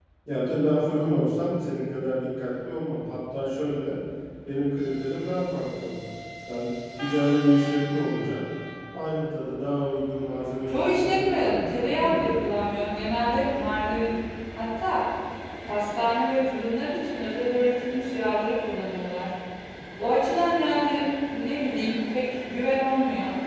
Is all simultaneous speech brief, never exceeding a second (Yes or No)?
No